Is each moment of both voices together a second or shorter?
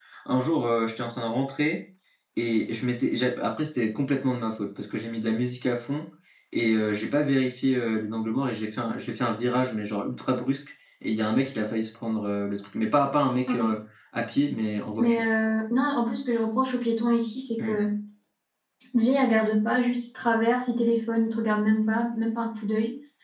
Yes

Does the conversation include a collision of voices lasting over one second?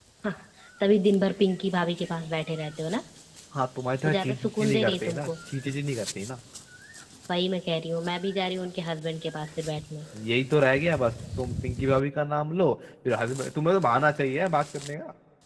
Yes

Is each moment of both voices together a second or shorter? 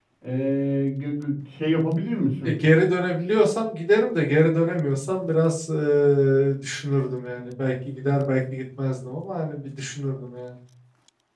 Yes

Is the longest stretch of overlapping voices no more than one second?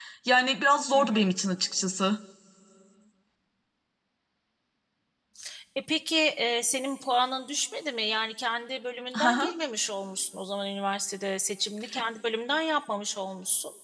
Yes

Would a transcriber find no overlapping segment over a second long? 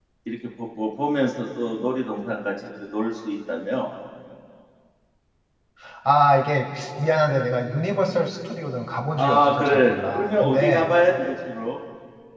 No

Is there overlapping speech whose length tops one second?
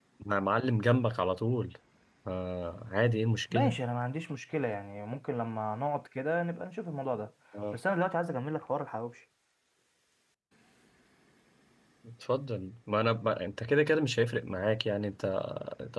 No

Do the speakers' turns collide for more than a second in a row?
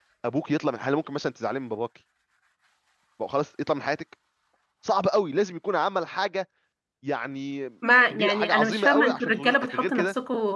Yes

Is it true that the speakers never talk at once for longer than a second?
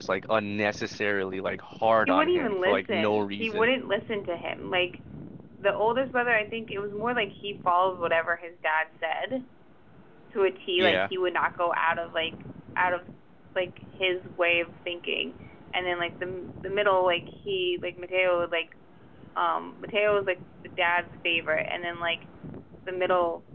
No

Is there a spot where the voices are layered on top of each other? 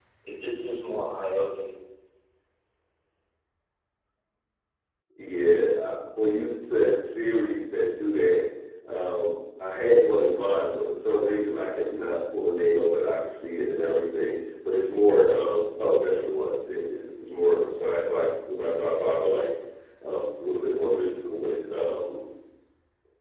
No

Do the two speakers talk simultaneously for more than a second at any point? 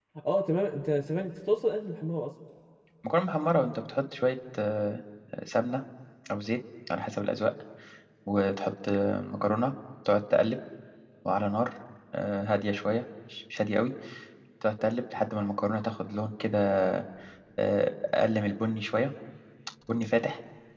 No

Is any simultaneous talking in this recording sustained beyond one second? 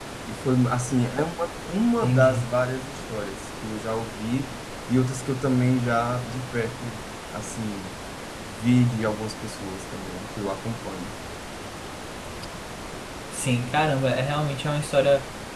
No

